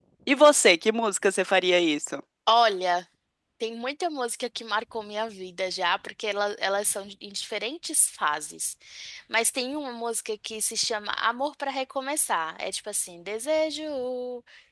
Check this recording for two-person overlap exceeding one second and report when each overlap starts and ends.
none

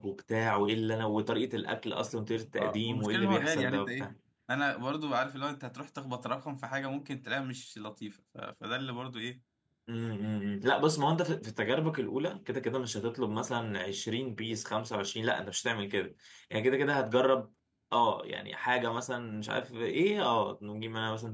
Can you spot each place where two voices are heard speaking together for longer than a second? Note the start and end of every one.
2.6-4.1

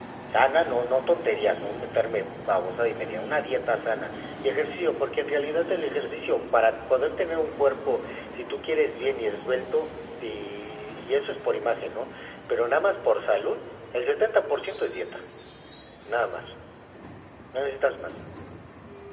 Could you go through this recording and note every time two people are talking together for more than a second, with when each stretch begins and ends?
none

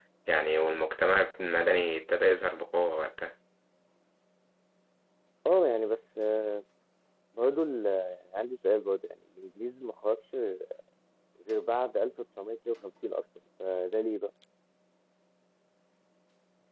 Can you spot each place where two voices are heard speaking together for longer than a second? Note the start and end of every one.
none

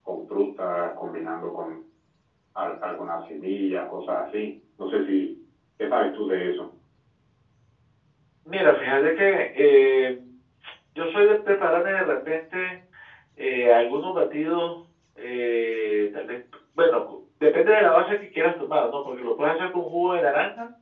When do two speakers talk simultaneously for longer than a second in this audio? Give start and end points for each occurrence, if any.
none

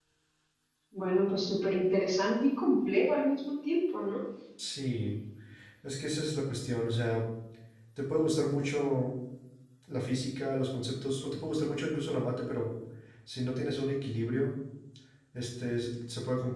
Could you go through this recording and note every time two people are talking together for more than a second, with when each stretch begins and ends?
none

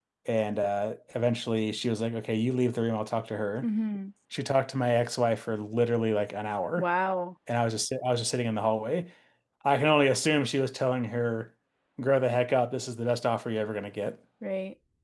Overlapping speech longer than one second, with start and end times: none

